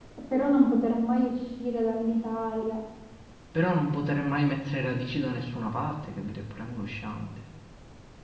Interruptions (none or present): none